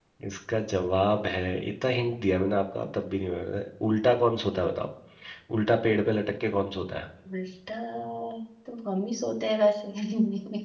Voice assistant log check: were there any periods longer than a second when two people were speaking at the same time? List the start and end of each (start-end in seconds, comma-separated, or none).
none